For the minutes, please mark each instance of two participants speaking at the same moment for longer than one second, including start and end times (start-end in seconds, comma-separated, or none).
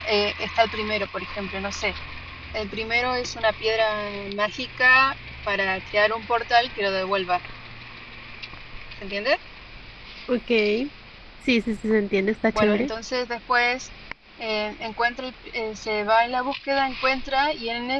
none